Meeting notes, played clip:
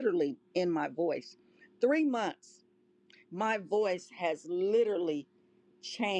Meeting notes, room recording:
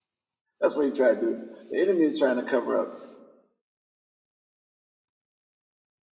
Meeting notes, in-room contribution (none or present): present